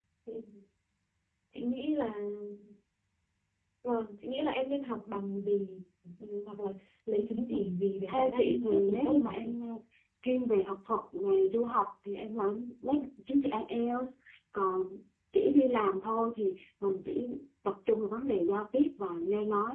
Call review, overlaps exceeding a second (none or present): present